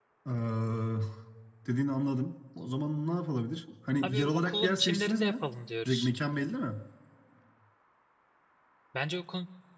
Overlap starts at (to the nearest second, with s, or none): 4 s